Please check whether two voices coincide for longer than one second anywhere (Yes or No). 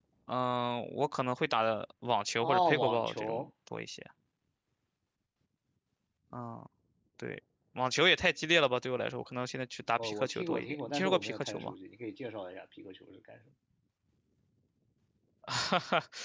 Yes